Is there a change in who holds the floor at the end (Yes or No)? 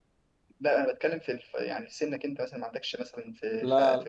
Yes